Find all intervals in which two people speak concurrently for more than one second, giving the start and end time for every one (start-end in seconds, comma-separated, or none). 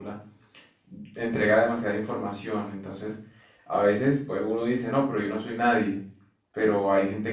none